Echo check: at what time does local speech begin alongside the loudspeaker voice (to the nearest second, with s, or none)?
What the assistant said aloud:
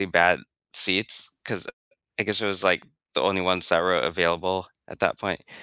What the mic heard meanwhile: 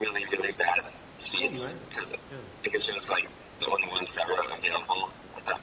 1 s